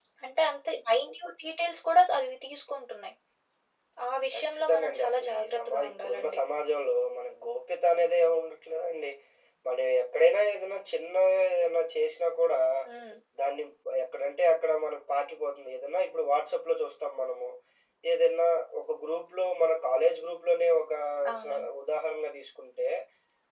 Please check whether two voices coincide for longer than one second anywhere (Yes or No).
Yes